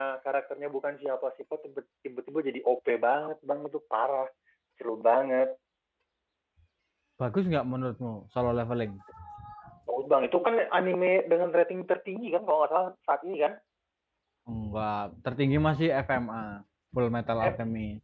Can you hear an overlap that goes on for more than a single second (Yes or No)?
No